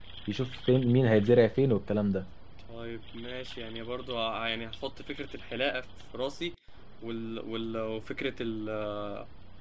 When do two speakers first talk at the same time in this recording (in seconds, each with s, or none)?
none